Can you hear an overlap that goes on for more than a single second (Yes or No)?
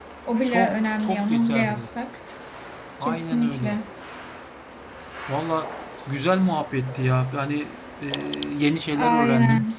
Yes